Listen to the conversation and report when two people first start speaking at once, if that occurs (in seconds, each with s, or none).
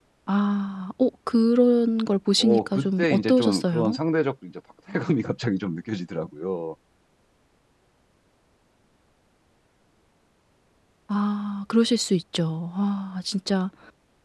2.4 s